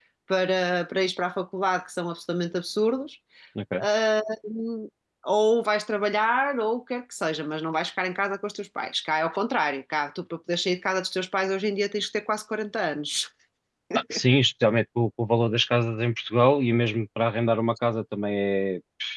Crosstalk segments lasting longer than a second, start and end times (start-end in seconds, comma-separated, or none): none